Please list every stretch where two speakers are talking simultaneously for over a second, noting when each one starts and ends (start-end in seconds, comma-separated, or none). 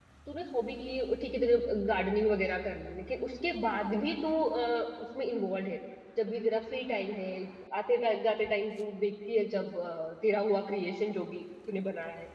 none